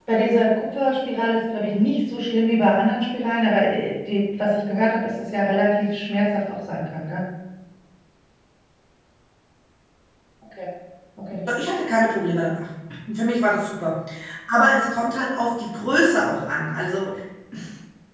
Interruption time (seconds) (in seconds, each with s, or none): none